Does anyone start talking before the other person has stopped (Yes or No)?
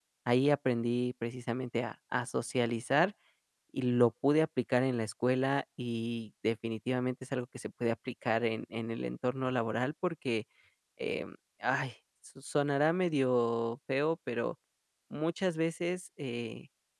No